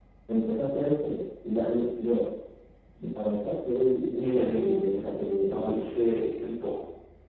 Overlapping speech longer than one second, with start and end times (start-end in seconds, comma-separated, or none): 4.2-5.9